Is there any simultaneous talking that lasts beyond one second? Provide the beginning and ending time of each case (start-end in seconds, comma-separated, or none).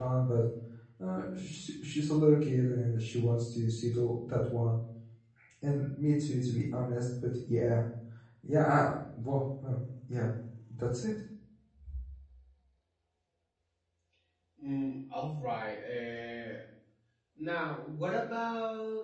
none